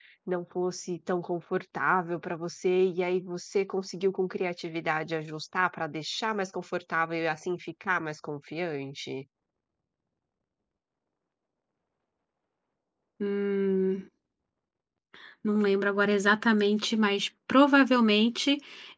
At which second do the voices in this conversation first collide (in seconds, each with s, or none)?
none